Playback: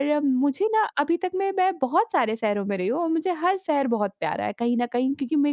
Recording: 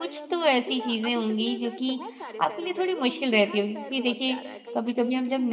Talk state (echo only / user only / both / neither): both